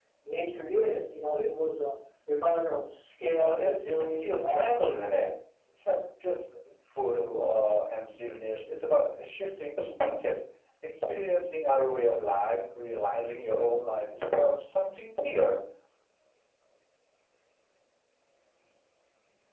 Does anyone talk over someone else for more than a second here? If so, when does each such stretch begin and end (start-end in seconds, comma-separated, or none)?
3.4-4.7